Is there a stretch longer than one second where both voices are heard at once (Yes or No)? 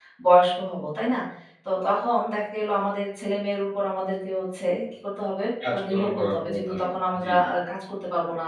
Yes